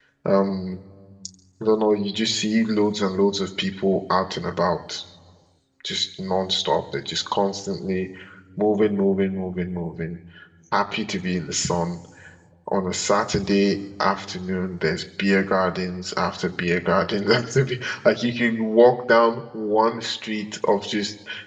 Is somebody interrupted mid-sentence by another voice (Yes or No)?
No